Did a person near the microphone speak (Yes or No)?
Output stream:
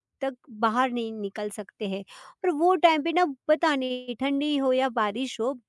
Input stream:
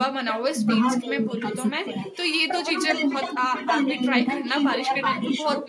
Yes